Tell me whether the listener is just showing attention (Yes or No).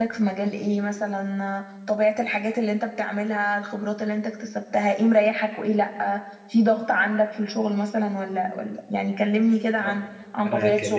No